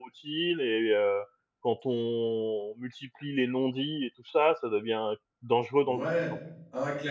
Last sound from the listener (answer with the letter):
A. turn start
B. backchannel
A